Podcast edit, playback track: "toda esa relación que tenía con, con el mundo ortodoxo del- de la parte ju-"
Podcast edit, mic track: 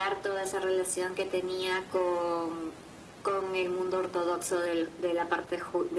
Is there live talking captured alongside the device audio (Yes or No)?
No